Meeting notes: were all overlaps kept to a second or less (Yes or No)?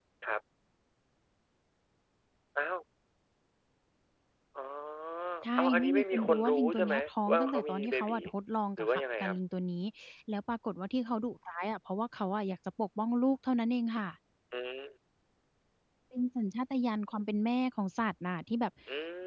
No